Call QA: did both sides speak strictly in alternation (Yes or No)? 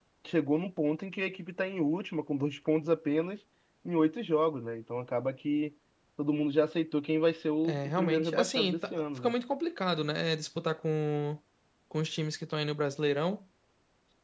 No